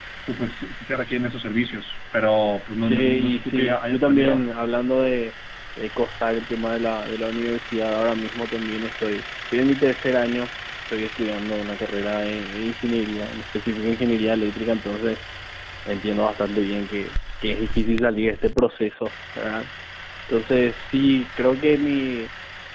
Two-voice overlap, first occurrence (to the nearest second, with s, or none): 3 s